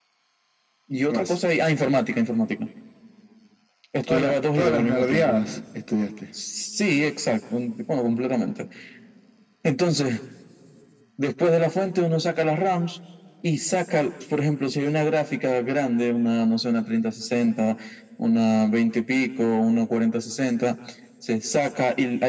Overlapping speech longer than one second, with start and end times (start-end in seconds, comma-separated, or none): 4.1-5.4